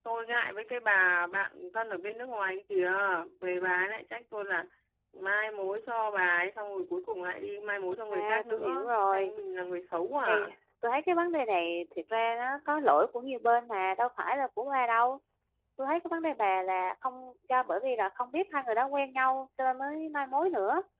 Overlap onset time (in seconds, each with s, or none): 8.1 s